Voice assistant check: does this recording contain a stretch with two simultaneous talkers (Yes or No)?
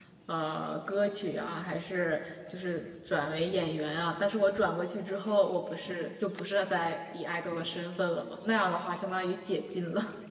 No